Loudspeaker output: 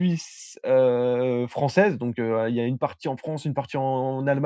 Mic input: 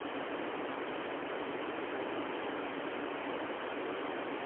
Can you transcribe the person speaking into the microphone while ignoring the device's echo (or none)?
none